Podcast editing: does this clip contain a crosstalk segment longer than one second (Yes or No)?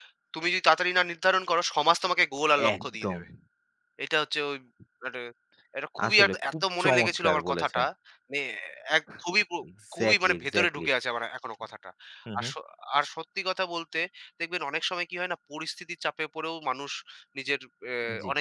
Yes